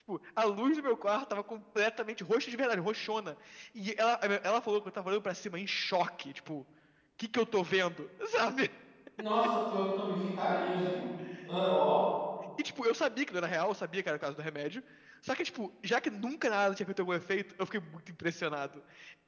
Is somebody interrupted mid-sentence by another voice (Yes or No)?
No